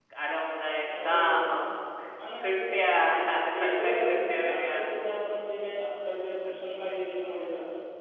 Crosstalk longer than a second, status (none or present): present